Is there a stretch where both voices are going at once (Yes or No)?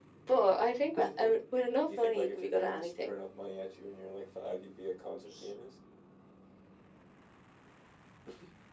Yes